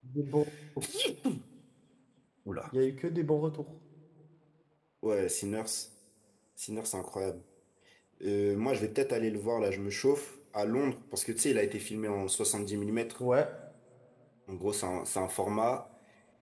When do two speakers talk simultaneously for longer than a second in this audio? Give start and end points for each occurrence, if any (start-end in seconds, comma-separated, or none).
none